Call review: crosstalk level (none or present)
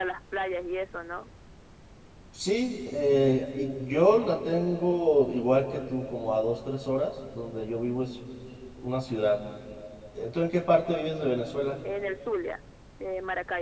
none